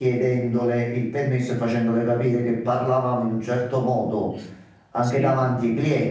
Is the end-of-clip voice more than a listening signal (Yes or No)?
No